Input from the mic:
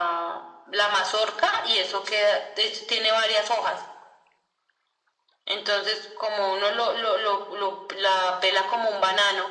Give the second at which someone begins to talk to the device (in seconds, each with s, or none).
none